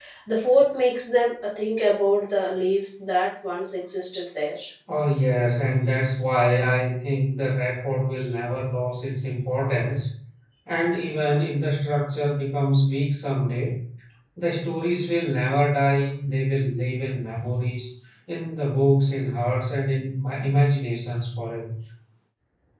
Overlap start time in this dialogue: none

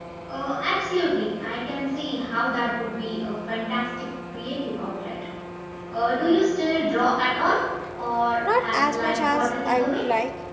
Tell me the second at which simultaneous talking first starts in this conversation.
8.5 s

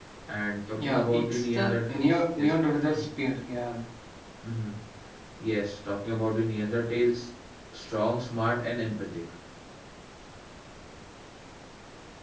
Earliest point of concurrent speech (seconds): 0.8 s

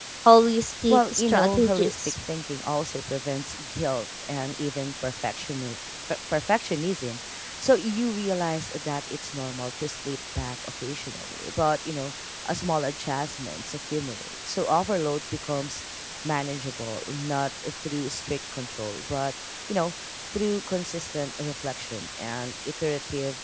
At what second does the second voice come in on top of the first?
0.9 s

